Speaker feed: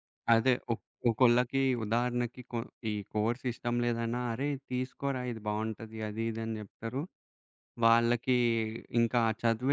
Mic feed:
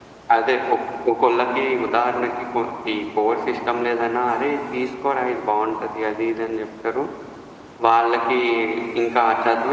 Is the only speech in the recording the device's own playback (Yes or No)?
Yes